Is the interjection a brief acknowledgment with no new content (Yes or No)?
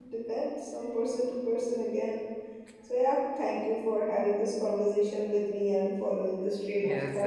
No